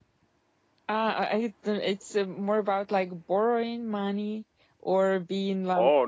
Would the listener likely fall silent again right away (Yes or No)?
No